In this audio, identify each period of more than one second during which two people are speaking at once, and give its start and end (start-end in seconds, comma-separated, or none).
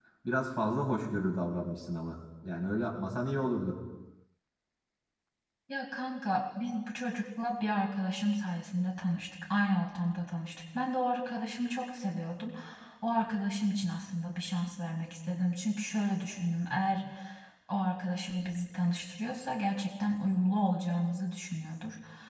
none